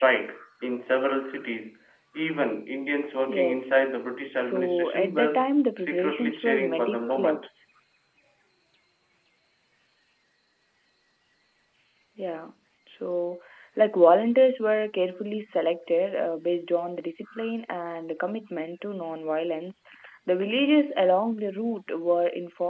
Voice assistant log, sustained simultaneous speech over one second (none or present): present